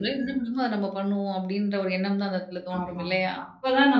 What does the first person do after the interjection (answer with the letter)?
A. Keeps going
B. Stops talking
B